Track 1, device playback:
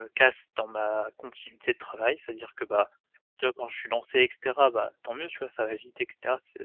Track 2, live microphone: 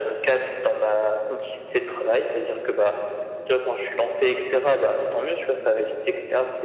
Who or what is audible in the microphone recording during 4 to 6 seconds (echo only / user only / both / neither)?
echo only